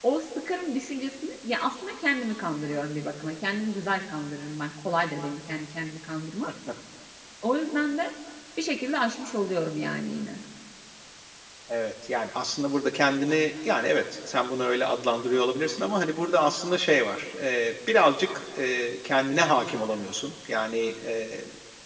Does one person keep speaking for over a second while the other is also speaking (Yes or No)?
No